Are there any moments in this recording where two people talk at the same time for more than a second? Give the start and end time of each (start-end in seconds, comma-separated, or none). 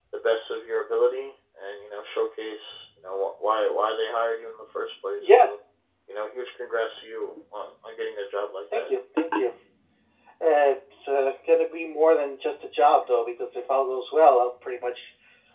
none